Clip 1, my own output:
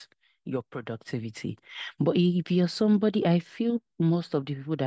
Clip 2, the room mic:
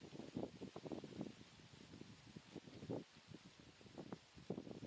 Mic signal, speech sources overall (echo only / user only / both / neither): neither